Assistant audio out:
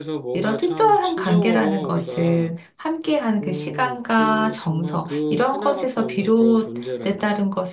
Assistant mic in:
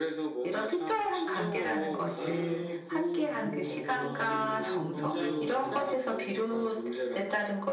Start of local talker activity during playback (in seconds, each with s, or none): 2.1 s